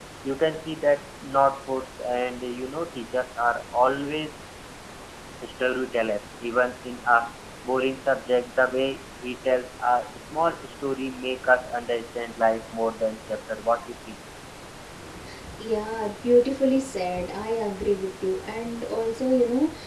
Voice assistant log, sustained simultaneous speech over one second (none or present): none